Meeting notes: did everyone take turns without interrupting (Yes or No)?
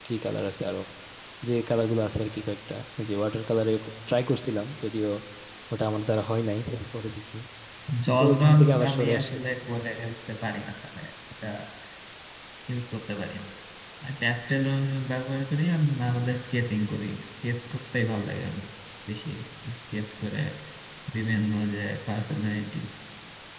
No